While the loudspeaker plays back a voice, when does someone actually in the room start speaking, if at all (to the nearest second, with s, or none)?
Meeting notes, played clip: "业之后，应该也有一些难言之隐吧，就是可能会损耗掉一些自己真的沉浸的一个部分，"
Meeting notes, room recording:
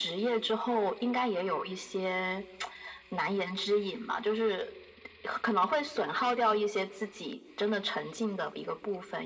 none